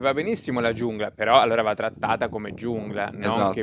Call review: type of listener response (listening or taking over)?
taking over